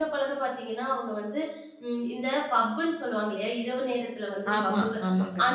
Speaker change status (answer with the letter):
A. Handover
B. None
B